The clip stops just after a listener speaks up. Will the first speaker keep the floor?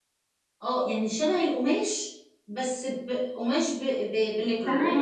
Yes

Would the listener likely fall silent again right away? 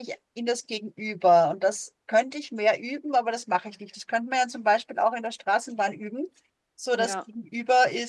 Yes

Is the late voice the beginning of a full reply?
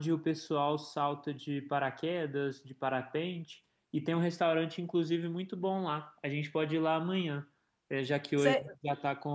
No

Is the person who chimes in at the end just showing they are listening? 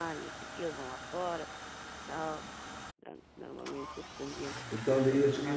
No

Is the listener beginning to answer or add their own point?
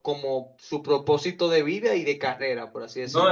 Yes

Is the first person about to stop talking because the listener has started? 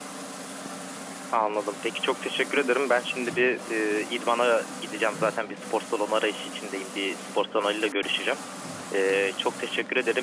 No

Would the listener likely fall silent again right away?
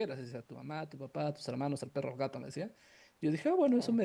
Yes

